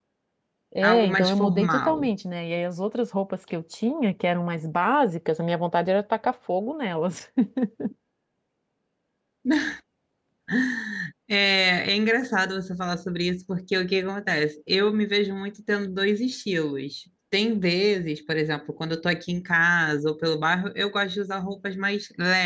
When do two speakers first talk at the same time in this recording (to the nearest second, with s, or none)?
1 s